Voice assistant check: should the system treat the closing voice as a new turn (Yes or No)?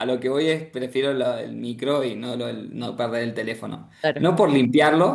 No